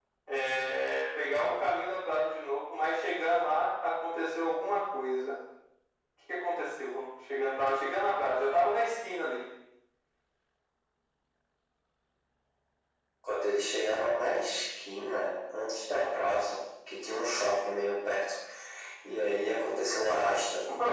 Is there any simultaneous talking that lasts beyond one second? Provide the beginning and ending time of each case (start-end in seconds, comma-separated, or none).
none